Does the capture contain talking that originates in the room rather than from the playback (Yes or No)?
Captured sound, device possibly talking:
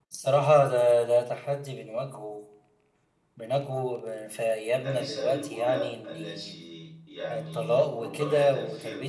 Yes